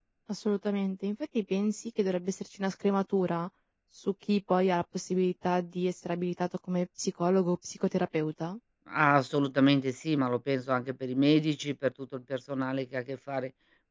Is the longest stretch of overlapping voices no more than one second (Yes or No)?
Yes